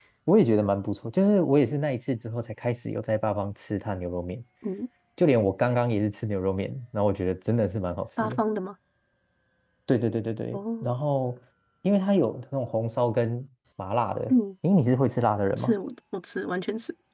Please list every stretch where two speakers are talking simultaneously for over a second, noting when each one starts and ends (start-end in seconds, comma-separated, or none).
none